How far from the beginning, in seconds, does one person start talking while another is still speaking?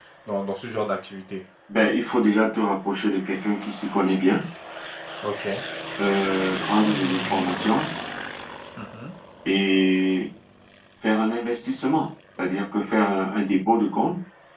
none

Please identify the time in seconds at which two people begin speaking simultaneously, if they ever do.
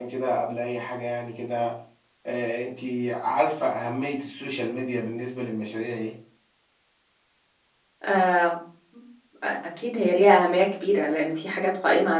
none

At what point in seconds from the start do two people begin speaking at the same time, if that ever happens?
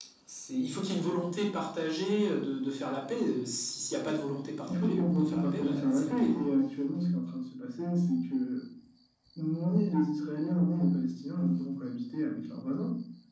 4.7 s

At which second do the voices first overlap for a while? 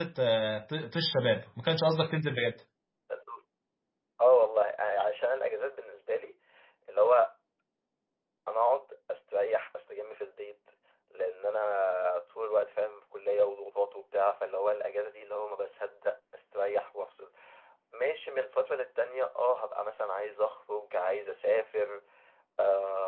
none

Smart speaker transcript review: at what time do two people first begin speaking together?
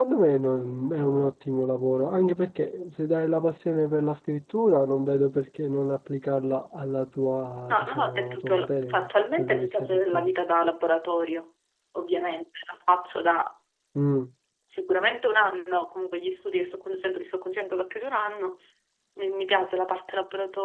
7.6 s

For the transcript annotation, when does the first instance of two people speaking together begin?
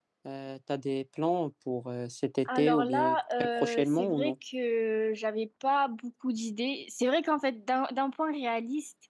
2.5 s

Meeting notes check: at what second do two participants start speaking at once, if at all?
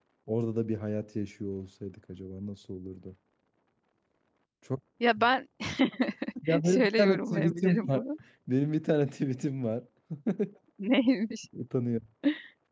6.6 s

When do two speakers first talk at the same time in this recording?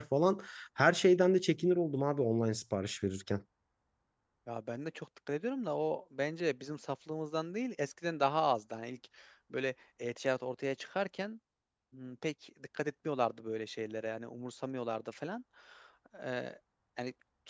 none

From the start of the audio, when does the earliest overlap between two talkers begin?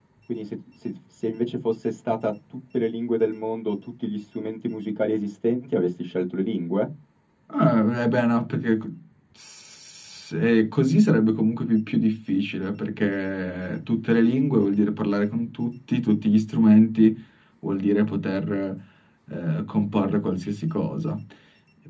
none

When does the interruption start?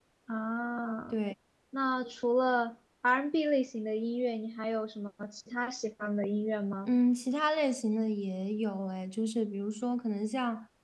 none

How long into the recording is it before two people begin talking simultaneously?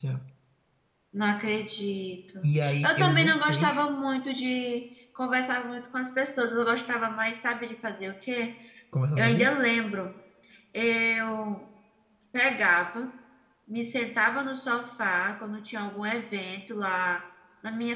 2.4 s

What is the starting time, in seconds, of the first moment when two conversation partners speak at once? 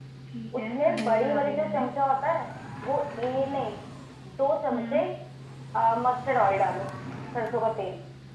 0.6 s

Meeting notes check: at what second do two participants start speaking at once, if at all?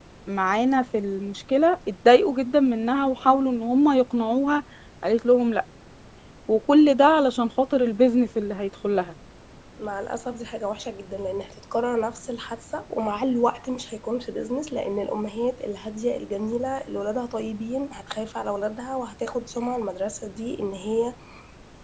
none

